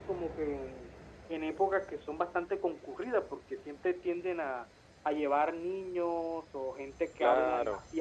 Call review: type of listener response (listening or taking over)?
listening